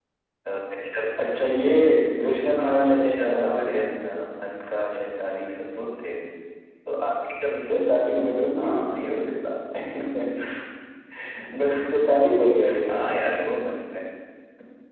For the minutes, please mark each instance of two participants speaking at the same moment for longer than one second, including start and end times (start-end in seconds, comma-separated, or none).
2.6-4.0